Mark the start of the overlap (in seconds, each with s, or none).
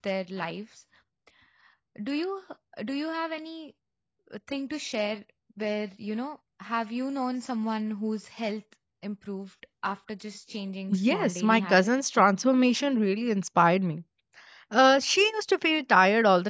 10.9 s